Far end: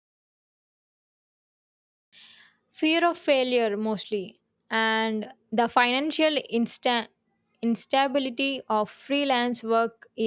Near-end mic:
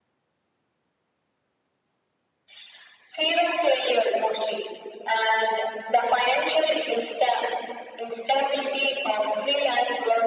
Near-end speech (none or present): none